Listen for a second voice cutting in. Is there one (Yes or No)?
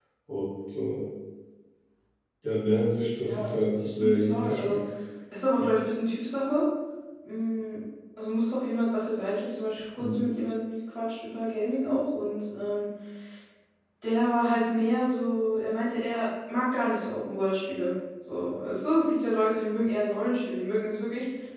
Yes